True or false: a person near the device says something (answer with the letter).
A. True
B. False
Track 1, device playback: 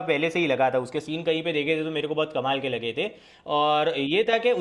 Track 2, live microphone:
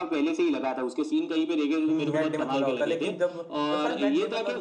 A